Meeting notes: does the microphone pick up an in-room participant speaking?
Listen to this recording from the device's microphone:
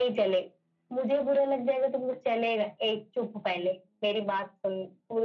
No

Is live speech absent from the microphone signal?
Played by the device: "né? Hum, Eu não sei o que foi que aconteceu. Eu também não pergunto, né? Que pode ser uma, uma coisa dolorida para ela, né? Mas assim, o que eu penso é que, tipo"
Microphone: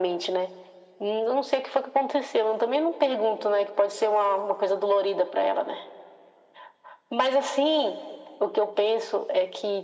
Yes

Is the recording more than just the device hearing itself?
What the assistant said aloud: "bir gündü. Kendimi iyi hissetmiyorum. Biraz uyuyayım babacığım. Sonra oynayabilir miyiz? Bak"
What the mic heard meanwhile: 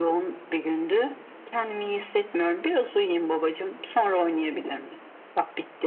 No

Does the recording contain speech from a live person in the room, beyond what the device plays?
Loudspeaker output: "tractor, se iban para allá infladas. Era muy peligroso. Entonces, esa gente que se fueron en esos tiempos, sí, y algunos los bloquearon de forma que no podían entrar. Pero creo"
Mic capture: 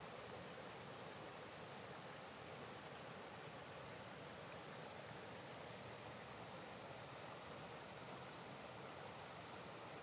No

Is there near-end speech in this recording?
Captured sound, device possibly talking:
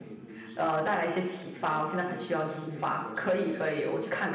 Yes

